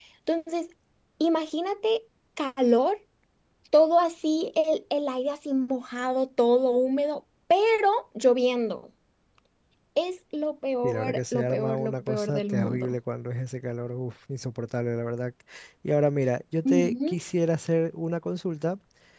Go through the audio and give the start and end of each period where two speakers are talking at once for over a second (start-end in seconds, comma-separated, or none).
10.8-12.9